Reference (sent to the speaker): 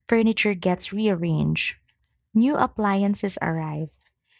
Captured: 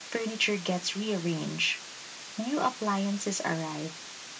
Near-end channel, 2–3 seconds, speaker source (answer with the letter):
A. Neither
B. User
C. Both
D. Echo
D